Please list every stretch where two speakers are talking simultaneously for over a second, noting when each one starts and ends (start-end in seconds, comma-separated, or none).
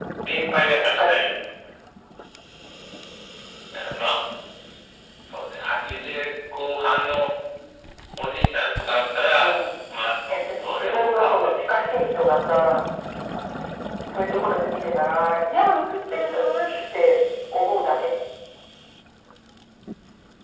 10.6-11.9